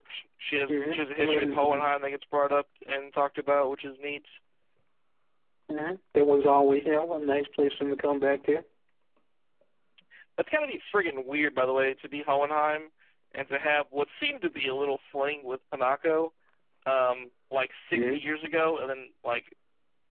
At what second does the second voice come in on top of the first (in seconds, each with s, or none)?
0.7 s